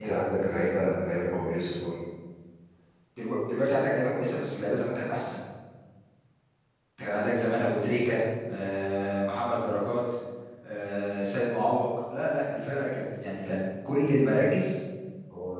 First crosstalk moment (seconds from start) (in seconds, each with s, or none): none